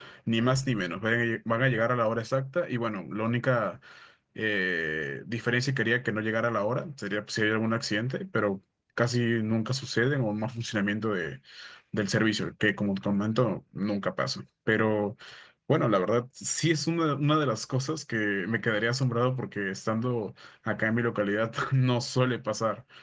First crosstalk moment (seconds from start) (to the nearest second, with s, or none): none